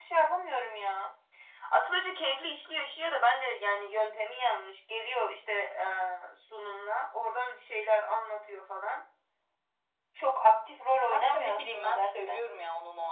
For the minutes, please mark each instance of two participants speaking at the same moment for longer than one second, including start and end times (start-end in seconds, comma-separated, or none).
11.1-12.4